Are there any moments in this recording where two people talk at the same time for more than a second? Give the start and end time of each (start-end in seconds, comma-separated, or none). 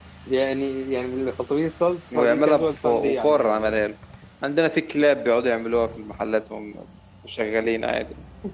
2.1-3.8